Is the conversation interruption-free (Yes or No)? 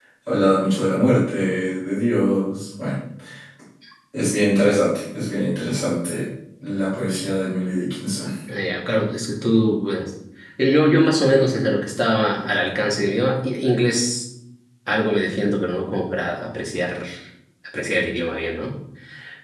Yes